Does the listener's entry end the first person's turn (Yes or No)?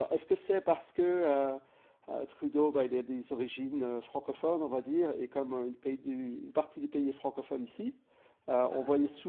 No